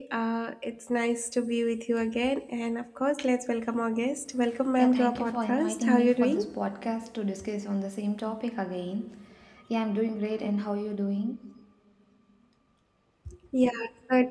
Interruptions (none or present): present